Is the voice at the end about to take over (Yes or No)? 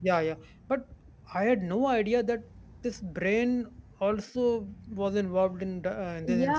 Yes